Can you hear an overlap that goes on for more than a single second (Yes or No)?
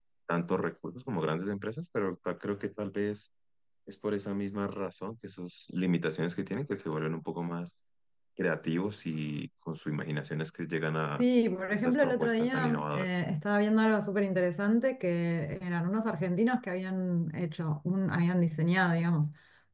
Yes